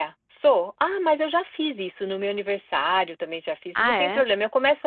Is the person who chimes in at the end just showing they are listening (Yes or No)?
Yes